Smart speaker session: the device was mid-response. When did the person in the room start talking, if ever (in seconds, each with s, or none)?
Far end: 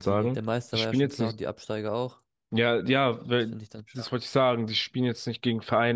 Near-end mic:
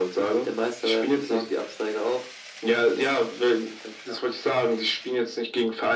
none